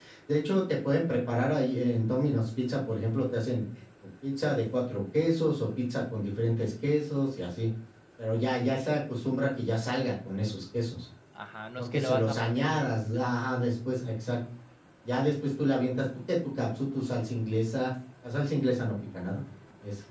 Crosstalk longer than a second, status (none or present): present